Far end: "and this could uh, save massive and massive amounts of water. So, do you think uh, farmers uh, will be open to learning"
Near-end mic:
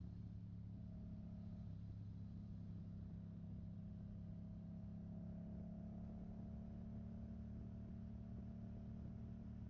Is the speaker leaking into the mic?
No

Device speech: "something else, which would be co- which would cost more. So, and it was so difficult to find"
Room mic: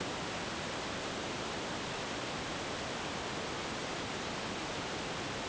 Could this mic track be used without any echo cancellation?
Yes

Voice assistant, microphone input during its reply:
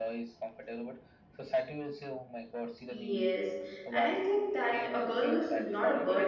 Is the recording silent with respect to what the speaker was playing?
No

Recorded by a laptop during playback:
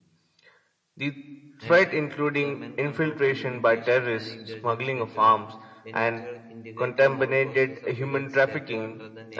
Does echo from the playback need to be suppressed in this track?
Yes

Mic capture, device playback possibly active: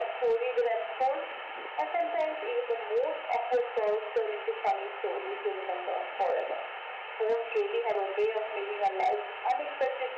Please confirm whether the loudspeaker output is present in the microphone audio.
Yes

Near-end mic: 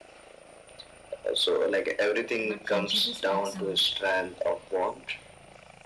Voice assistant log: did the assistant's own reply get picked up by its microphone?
Yes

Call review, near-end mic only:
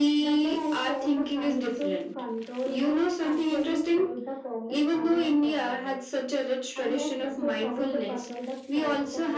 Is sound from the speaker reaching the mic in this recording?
Yes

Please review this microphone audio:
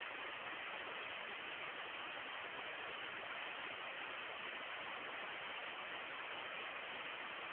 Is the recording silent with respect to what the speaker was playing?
Yes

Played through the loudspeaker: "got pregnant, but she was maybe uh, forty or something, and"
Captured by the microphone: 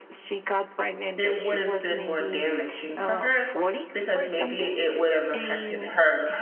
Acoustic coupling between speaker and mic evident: Yes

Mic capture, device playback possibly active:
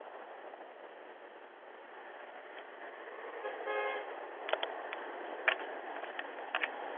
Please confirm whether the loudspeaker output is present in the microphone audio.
No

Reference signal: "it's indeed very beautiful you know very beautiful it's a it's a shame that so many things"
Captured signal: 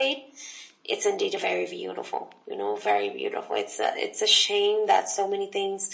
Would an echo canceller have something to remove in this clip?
Yes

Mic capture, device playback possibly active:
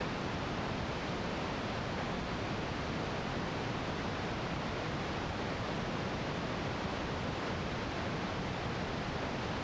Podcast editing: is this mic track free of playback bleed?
Yes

